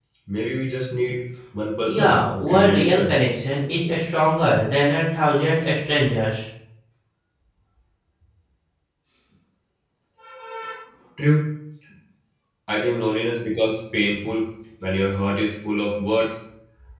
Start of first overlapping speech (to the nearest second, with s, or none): 2 s